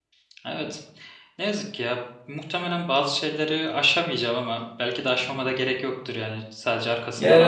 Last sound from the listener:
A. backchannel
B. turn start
B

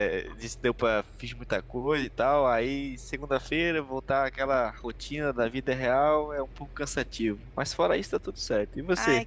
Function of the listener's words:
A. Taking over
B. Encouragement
A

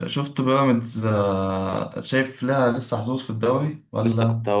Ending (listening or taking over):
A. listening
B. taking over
B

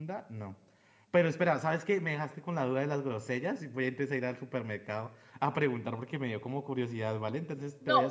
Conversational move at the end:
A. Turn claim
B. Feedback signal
A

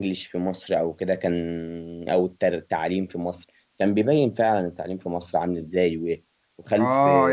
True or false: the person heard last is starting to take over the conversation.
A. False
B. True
B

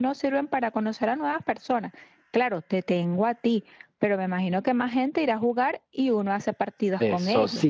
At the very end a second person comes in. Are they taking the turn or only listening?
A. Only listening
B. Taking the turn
B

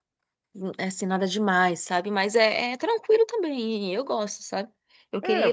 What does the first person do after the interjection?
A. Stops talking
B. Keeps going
A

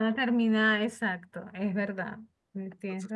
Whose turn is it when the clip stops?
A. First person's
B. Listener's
B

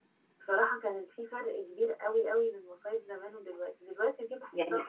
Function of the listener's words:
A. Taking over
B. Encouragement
B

